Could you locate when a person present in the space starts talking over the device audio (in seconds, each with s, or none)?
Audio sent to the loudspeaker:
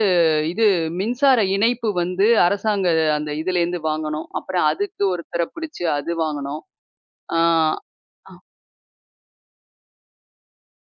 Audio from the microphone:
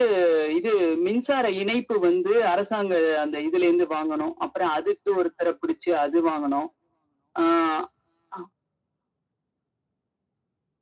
none